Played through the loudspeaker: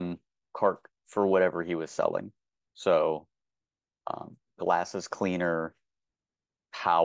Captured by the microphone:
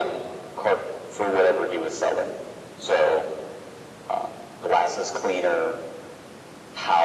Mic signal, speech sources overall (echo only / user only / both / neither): echo only